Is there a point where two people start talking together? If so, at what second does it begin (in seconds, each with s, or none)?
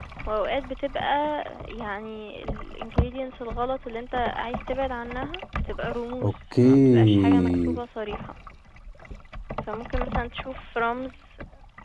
6.2 s